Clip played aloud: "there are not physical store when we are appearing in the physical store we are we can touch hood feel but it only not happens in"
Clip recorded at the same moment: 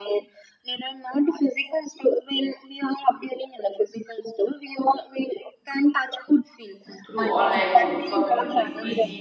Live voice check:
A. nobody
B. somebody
B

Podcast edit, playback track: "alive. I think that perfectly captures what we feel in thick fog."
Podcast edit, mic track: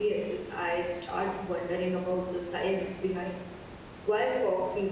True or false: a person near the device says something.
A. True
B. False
A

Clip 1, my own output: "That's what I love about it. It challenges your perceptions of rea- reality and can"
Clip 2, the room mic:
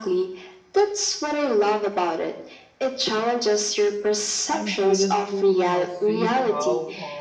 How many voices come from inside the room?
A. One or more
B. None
A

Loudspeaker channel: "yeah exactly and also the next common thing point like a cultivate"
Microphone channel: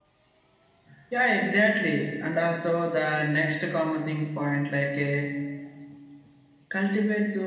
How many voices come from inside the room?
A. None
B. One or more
A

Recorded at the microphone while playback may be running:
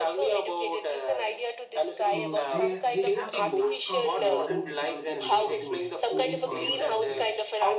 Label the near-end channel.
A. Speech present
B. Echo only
A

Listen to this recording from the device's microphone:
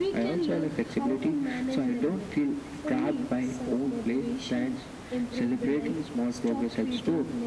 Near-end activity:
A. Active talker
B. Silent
B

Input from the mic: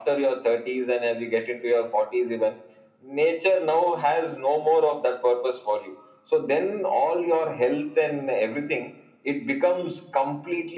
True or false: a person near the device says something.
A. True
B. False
B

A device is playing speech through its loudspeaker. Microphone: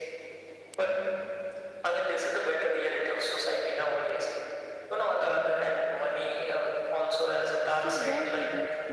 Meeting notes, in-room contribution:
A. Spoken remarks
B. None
A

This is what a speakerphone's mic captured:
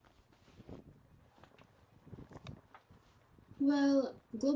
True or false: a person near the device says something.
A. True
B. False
A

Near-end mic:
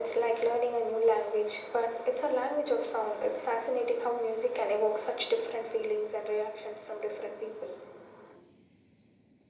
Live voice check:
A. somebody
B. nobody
B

